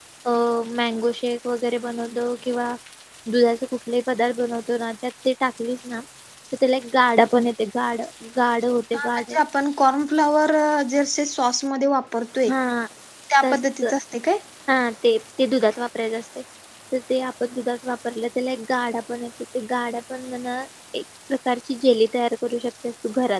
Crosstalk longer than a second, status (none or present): none